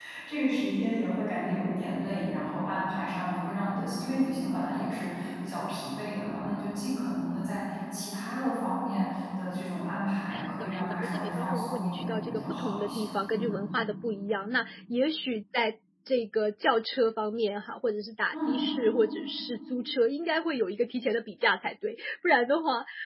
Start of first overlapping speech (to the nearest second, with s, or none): 10 s